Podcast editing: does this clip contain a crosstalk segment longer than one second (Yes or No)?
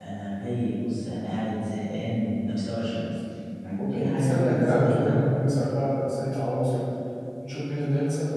Yes